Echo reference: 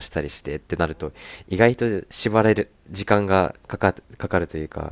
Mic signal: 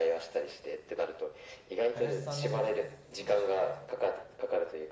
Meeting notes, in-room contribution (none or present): present